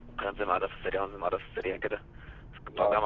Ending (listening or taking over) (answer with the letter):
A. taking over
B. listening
B